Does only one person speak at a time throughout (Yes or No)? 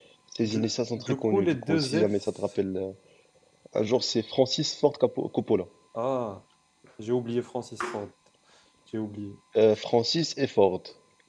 No